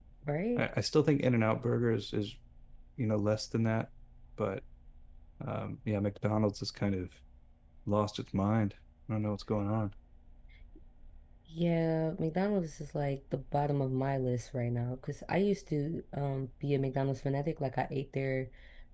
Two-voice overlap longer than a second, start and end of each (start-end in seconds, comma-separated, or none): none